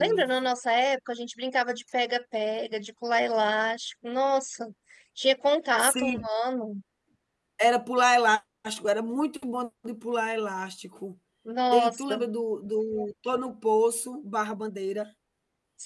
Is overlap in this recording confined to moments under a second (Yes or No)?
Yes